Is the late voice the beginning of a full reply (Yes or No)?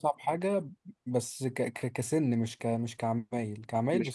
No